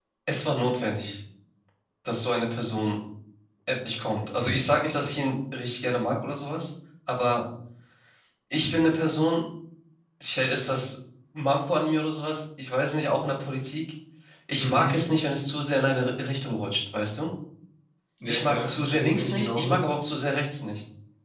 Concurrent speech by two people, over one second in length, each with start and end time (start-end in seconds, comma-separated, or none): 18.3-19.7